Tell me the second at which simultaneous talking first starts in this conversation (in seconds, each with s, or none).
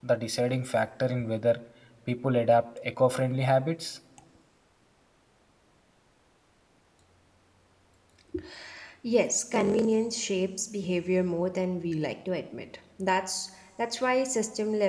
none